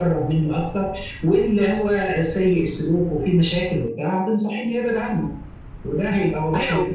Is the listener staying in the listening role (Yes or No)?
Yes